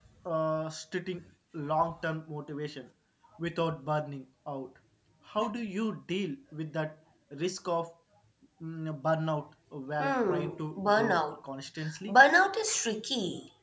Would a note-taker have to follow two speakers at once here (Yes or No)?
Yes